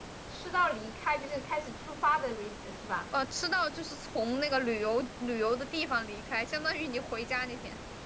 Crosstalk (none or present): none